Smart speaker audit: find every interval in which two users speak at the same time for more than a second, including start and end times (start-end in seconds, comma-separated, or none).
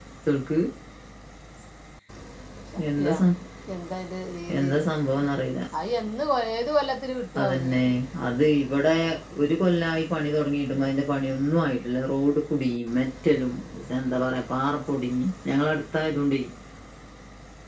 none